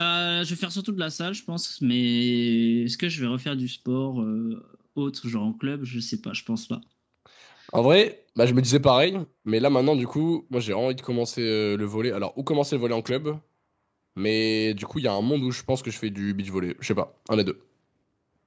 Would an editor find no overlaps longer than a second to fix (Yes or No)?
Yes